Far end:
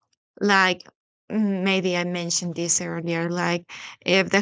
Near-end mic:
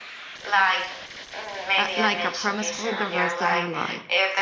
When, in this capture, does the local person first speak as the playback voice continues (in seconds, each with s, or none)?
1.8 s